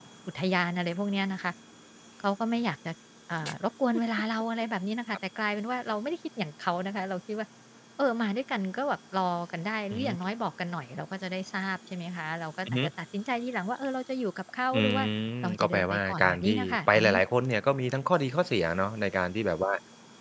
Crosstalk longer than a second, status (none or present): present